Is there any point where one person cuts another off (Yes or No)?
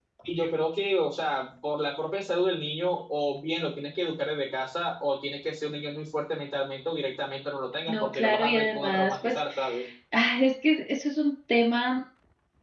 Yes